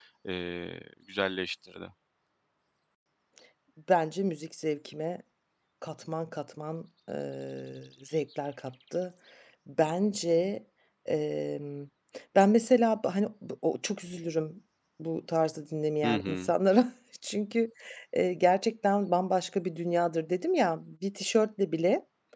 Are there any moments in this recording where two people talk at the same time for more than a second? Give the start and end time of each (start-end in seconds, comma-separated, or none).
none